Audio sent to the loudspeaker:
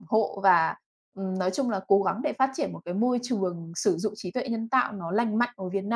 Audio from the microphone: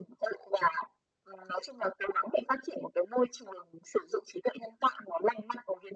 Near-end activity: none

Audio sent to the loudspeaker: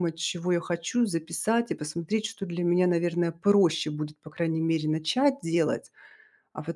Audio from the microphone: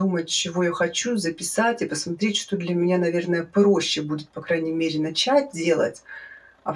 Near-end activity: none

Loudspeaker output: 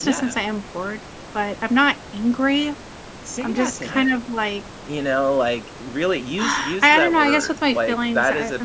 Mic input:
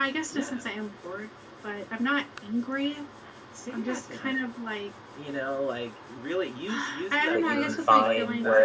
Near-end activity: present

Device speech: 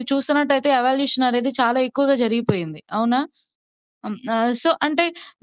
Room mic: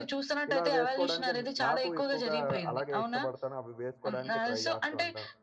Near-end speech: present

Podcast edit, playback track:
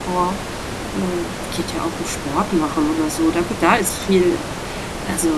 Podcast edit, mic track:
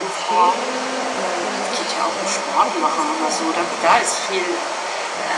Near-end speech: present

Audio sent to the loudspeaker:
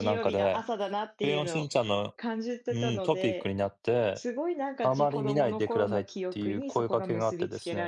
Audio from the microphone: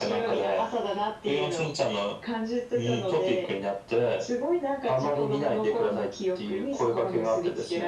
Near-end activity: none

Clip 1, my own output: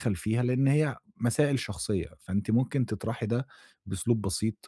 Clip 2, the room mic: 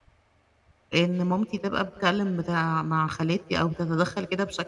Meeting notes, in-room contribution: present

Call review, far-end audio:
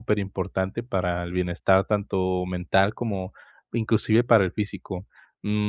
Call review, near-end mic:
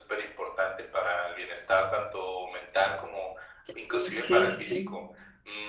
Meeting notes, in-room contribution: present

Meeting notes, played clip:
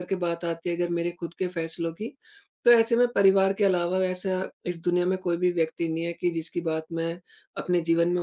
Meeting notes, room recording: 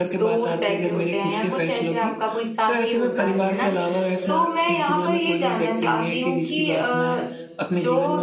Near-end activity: present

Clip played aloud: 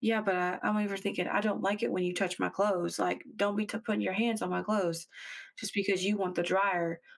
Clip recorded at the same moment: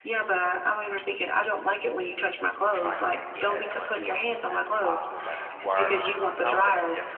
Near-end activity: present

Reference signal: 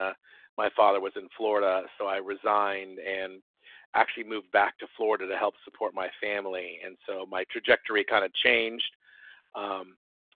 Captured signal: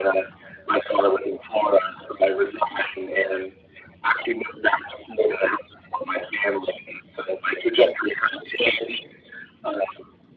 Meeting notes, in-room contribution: none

